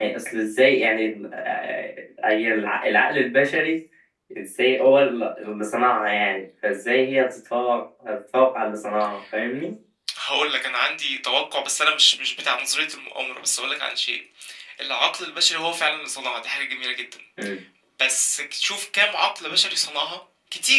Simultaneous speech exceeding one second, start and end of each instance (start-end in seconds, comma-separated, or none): none